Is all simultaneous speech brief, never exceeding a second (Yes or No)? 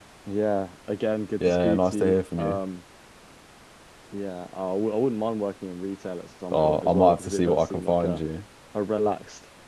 No